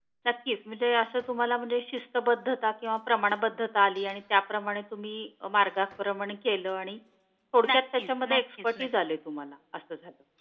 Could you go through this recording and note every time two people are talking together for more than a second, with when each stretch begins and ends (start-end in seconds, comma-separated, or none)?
7.7-8.9